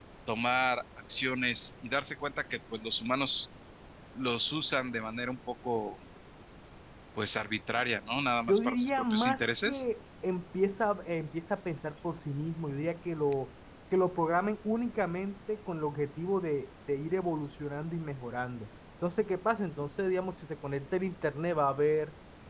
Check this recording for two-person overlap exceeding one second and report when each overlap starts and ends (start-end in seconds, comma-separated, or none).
8.5-9.8